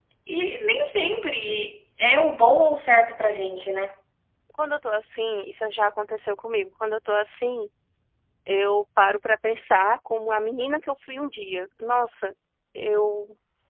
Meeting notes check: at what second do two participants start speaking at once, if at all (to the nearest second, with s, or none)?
none